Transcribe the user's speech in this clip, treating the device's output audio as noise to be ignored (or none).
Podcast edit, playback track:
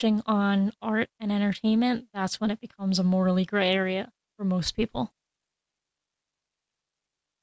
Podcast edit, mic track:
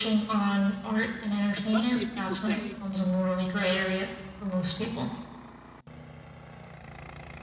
especially if people say,